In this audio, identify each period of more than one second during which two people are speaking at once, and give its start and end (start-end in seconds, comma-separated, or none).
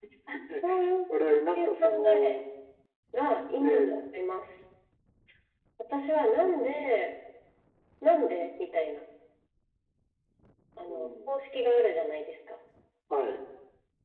1.1-2.4